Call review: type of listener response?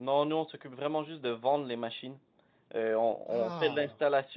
listening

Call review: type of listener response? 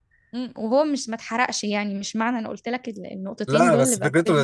taking over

